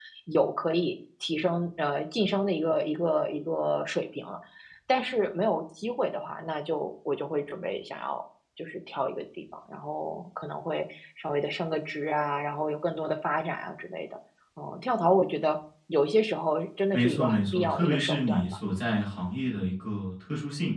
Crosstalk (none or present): present